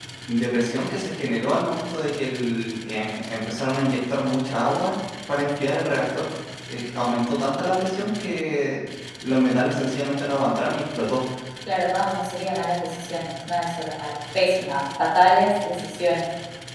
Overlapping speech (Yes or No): No